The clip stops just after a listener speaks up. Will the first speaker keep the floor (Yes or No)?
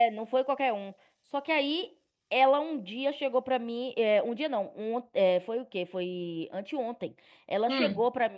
Yes